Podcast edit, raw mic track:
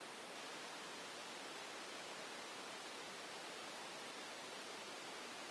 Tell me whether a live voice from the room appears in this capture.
No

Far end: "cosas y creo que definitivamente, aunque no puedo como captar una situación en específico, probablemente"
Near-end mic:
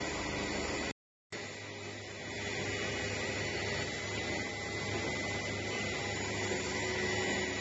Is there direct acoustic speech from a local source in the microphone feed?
No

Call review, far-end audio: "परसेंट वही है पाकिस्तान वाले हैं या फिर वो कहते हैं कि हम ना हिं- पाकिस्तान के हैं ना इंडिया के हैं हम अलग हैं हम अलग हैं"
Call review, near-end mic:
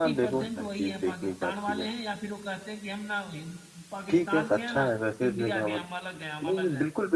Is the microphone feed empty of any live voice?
No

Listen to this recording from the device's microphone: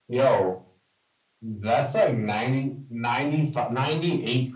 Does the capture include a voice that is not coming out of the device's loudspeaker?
No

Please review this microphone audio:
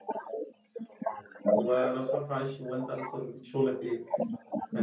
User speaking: Yes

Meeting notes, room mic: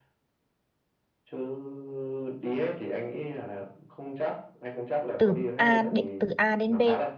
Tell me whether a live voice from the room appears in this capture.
Yes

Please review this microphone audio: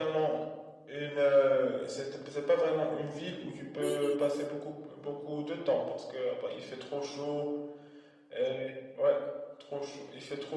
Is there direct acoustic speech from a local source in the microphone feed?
Yes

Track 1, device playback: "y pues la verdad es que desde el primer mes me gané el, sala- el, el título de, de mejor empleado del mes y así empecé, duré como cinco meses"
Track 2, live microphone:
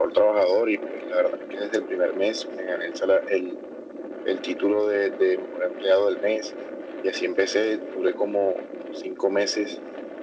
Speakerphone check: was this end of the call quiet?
Yes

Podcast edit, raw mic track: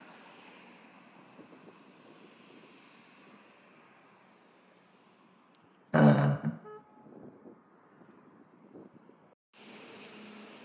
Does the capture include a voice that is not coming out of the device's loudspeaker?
Yes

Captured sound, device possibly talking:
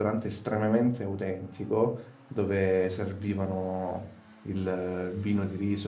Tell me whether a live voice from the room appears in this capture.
Yes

